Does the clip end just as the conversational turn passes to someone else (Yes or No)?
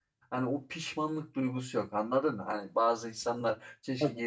No